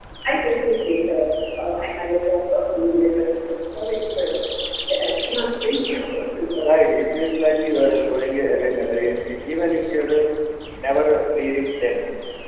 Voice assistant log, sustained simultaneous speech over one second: none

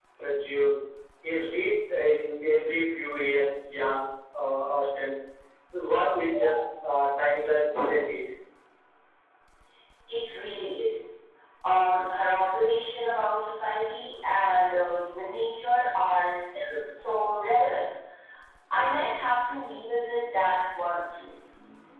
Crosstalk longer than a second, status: none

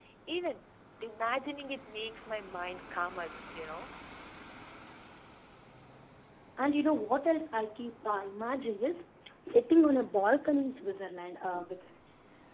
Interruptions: none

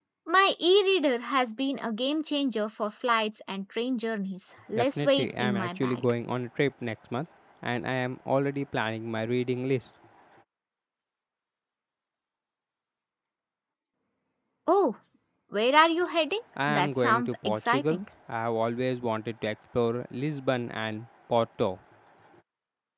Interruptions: present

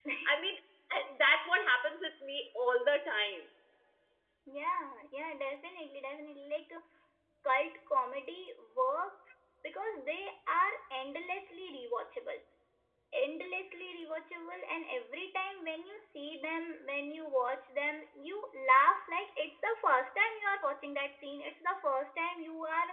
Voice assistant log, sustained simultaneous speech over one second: none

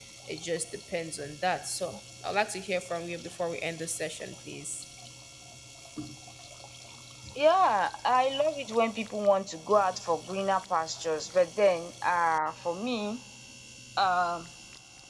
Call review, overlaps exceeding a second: none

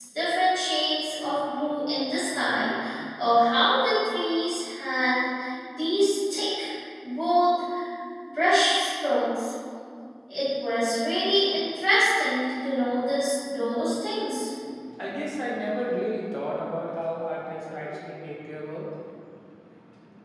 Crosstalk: none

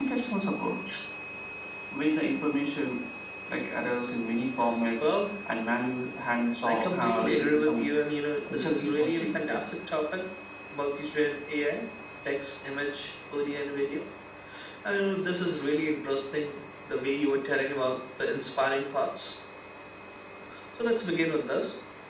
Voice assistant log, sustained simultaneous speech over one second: present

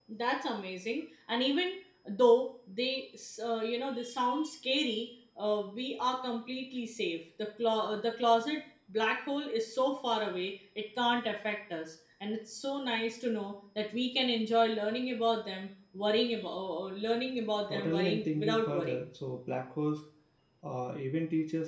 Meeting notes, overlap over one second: present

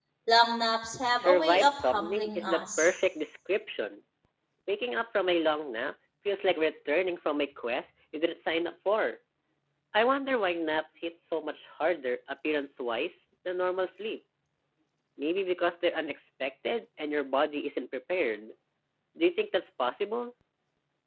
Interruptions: present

